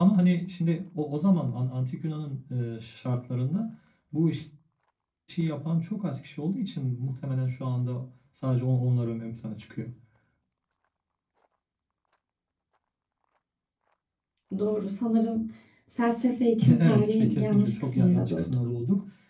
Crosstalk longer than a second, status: present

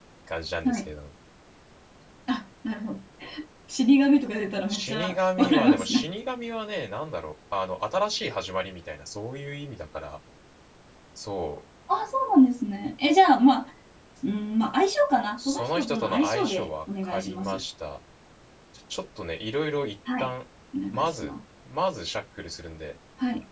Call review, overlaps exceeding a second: present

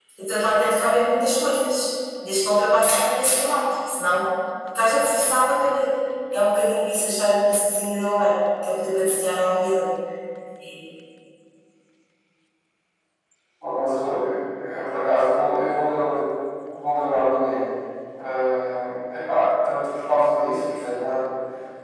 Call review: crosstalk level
none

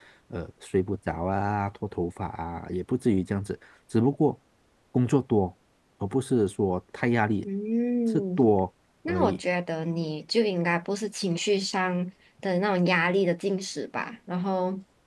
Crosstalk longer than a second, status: none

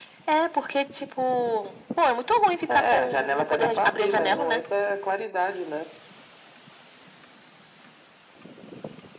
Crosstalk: present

